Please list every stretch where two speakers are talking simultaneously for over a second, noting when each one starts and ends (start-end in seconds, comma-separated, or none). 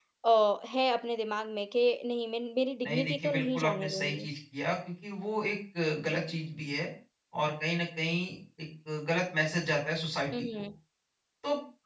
2.8-4.3